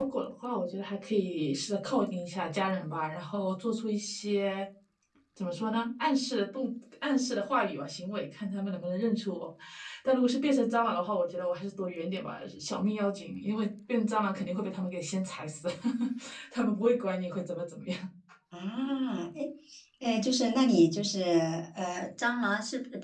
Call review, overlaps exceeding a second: none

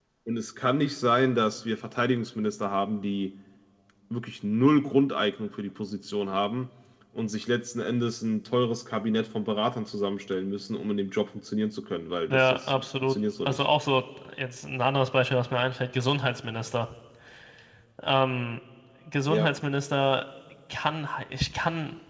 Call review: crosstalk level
present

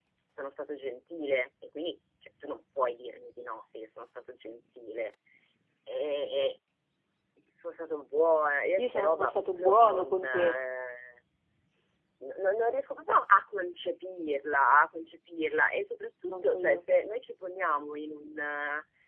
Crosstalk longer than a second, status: present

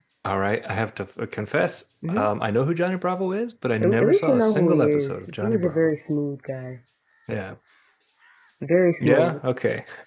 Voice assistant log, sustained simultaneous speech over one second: present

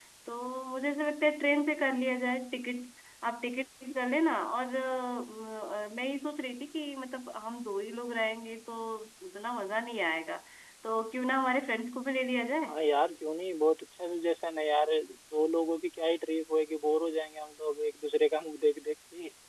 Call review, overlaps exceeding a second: none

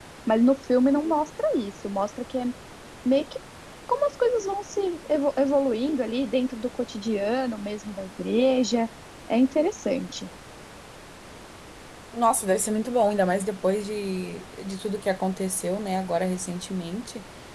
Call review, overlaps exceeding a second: none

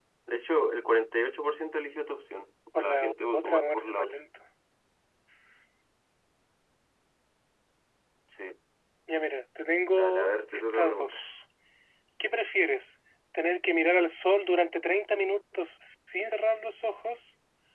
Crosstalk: present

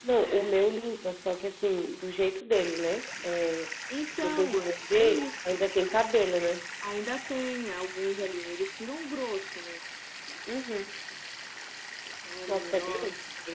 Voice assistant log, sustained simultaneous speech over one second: present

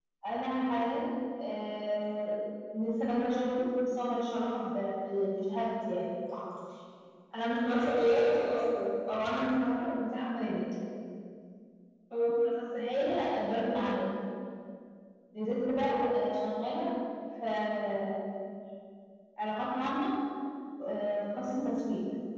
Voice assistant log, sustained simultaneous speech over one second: none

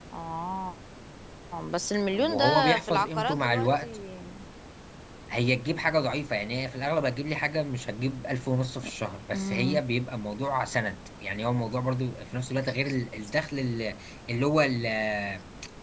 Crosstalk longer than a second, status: present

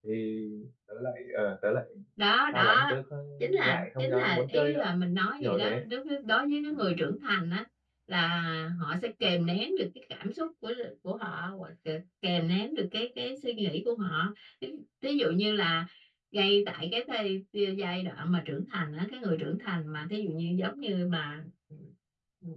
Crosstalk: present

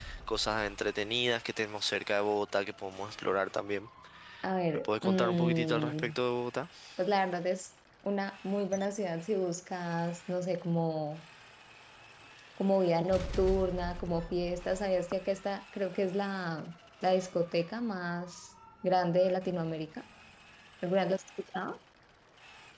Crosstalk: present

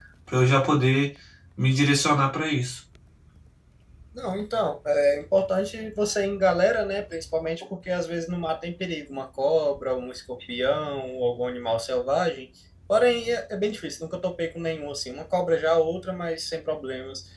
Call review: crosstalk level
none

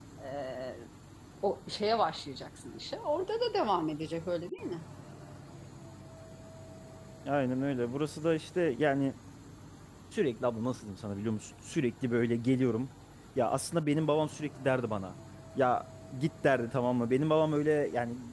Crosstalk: none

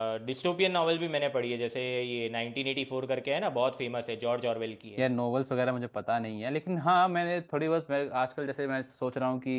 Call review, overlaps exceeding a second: none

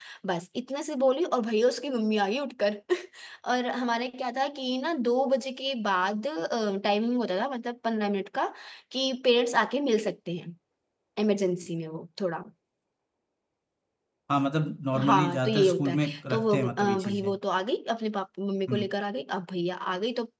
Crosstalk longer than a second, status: present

